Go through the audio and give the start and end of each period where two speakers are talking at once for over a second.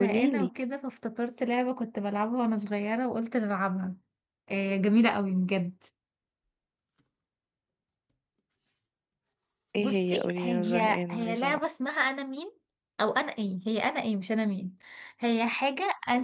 9.8-11.6

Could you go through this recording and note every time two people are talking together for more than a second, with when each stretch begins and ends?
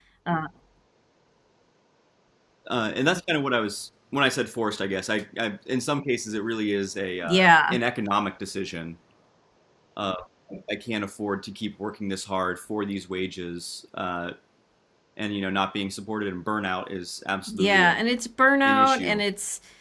none

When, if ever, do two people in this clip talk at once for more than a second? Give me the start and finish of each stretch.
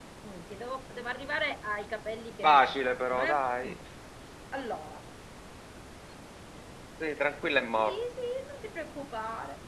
2.4-3.7

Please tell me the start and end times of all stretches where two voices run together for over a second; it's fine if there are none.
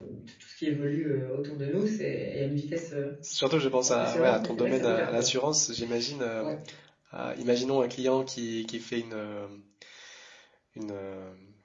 3.9-5.3

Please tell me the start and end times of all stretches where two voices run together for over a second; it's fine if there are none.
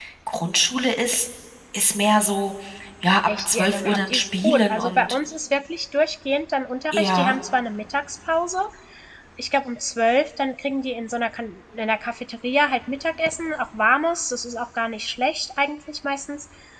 3.3-5.2

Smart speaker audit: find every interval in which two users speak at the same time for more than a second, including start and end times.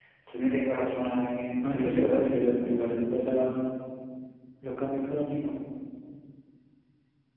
1.6-3.0

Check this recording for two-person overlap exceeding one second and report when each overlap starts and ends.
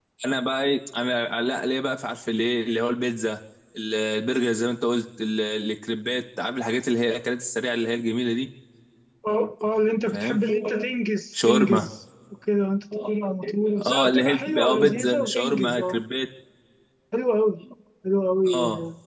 13.8-16.0

